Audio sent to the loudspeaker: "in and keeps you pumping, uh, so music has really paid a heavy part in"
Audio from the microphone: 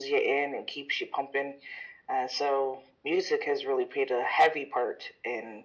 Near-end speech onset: none

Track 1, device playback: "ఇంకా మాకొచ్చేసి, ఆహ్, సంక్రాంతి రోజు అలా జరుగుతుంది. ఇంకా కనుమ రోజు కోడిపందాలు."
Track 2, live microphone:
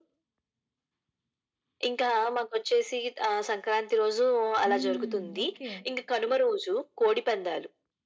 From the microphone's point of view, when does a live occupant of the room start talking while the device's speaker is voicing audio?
4.7 s

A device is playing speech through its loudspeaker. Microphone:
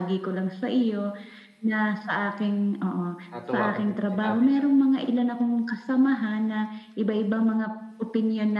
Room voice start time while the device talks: 3.3 s

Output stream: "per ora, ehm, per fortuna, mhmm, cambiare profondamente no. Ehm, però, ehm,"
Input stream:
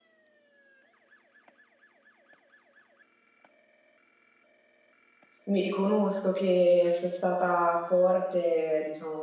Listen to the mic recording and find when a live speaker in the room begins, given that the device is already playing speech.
5.4 s

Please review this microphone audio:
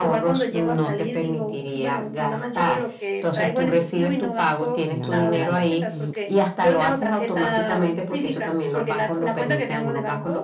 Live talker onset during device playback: 4.9 s

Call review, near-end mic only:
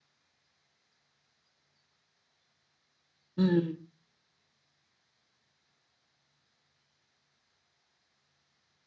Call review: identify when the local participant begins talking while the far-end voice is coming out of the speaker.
3.4 s

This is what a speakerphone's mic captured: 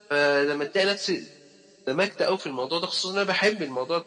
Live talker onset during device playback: none

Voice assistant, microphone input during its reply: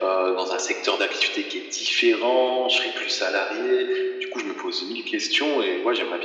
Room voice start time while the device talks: none

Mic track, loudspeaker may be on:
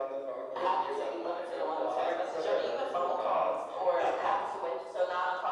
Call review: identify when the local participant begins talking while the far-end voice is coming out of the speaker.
none

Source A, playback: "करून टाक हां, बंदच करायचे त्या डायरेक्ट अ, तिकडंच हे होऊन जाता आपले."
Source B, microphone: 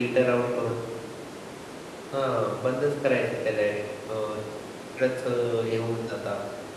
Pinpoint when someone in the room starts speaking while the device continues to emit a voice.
none

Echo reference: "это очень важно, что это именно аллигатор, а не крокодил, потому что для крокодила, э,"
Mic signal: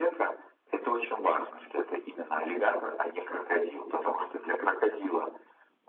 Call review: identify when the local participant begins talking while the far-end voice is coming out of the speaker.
none

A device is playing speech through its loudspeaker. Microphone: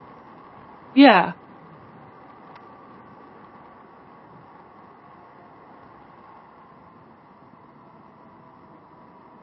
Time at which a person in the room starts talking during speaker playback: 0.9 s

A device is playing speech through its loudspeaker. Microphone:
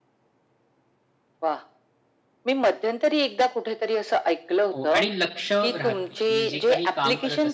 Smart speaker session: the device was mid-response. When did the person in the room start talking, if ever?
4.7 s

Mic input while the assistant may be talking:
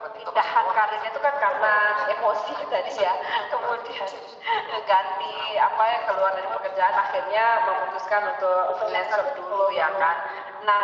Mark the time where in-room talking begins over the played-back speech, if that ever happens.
none

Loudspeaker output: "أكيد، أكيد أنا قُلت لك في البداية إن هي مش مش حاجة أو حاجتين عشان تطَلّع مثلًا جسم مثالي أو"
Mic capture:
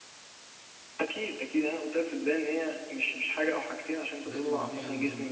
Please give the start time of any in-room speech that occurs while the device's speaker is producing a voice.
4.2 s

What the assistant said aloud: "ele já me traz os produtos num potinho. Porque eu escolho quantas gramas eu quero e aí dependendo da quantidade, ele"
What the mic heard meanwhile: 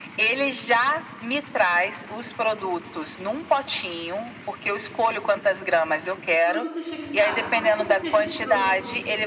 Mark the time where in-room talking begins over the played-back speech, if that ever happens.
6.4 s

